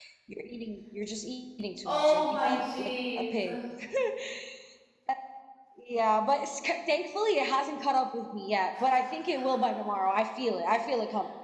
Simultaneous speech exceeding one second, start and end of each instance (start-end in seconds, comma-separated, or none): 1.9-3.5